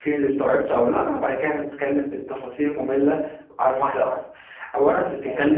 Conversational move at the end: listening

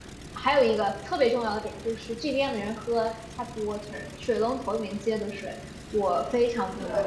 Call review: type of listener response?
listening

